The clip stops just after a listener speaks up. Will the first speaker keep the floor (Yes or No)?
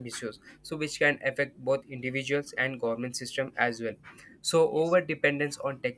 Yes